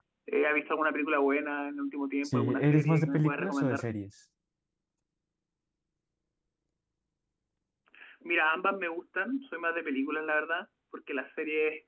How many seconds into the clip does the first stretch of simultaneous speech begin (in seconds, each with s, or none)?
2.2 s